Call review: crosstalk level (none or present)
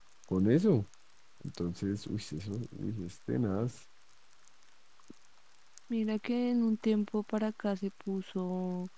none